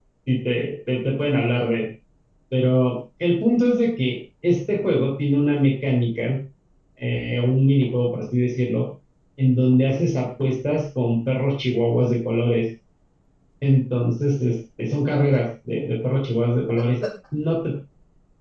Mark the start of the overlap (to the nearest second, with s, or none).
none